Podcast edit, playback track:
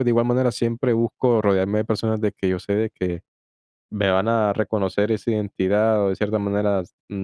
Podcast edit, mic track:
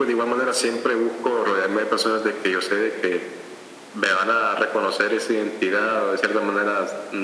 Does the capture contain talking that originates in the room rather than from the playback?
No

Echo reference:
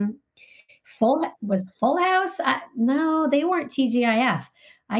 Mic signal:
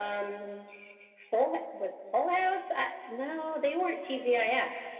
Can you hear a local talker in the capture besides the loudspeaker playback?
No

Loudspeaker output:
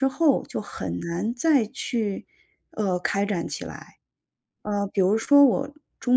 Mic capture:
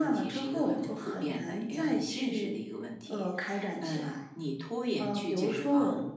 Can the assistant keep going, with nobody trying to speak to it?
No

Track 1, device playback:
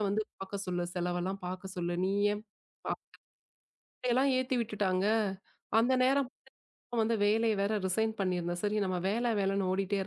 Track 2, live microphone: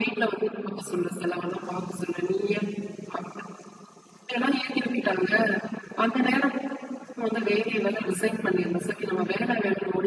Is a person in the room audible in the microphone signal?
No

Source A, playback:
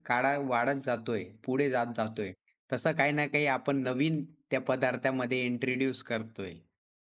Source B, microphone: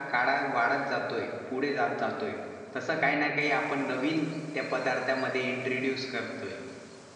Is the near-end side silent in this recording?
Yes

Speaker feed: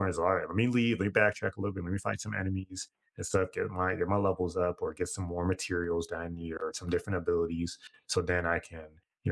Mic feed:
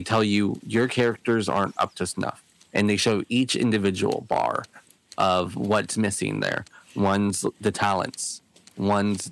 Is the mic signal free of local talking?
No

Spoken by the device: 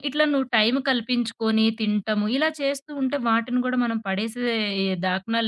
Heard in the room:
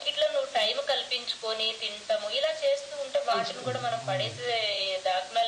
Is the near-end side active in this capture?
Yes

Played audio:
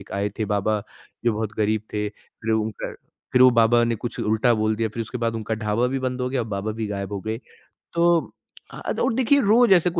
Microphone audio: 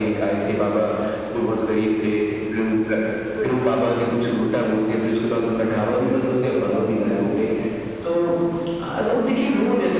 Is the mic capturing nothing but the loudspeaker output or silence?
No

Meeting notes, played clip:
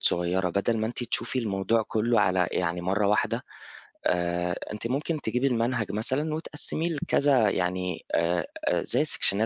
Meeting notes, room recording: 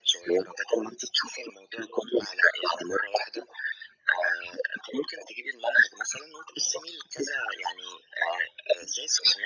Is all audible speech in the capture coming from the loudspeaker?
Yes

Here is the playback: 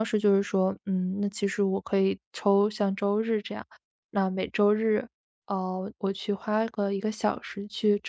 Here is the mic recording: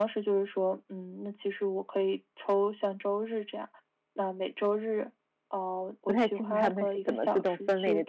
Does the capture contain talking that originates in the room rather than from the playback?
Yes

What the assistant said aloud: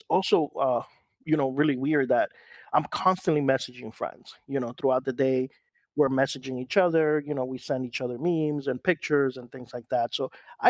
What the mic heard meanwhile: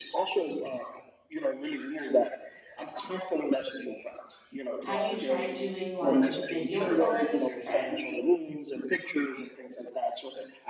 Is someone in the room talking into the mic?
Yes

